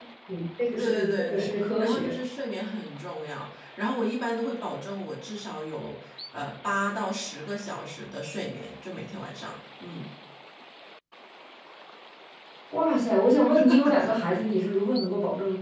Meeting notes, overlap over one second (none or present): present